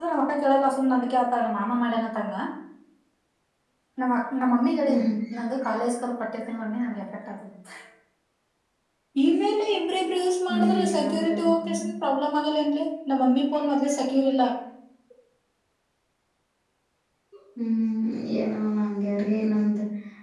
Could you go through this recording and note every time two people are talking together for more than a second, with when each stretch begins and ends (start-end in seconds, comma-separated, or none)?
10.5-11.8